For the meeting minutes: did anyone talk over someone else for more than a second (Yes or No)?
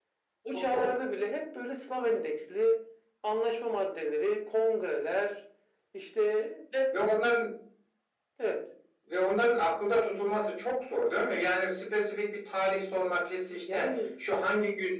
No